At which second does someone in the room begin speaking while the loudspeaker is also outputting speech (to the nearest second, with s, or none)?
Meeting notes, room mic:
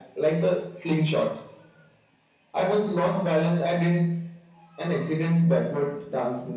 none